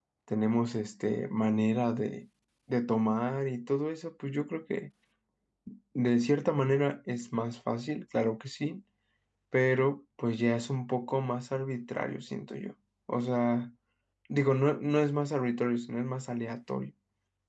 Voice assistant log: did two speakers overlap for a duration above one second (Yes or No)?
No